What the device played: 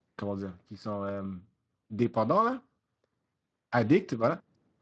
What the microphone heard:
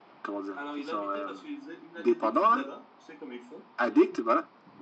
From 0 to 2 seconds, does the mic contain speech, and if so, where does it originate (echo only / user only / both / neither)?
both